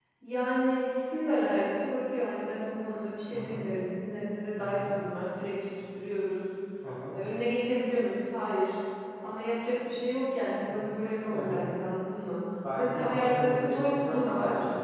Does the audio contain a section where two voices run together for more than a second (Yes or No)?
Yes